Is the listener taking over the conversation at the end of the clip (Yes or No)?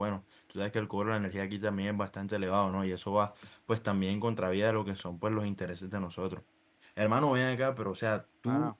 No